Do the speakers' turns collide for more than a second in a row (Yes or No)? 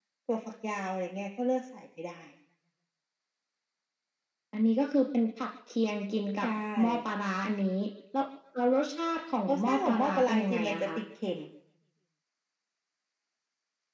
Yes